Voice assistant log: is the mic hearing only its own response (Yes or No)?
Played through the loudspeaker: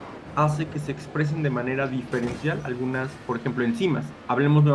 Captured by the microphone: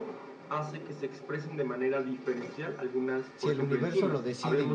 No